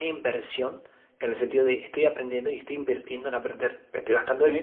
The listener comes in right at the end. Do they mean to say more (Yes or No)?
No